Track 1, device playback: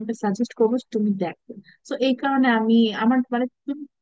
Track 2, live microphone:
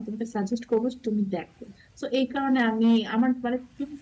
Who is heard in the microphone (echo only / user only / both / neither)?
echo only